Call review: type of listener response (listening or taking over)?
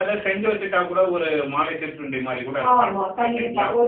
taking over